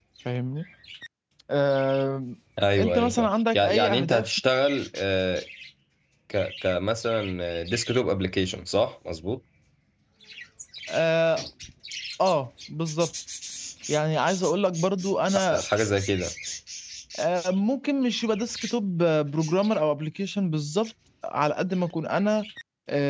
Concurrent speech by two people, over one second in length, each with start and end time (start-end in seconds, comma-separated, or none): 2.8-4.3